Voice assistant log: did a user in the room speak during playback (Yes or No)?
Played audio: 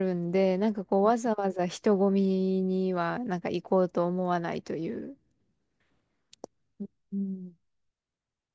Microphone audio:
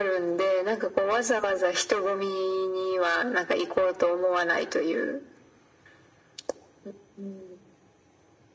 No